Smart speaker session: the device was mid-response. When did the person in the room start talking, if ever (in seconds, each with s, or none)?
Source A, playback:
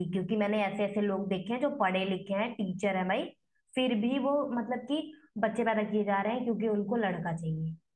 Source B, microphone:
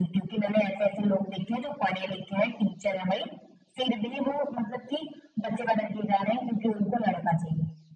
none